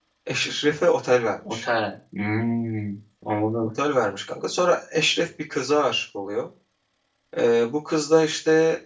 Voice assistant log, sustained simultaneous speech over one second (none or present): none